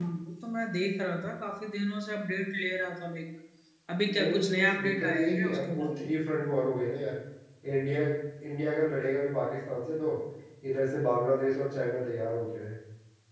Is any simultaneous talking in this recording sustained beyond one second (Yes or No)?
Yes